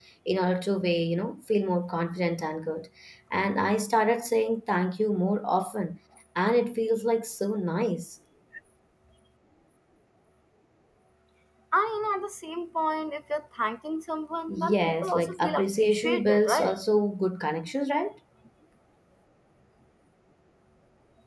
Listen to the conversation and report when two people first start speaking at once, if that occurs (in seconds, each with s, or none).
14.5 s